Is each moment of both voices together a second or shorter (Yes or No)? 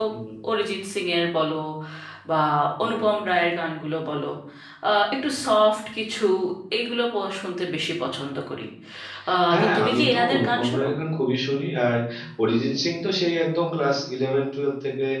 No